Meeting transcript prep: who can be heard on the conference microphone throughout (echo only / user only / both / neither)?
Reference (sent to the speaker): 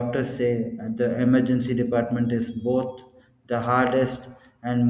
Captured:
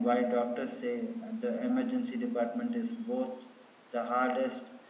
echo only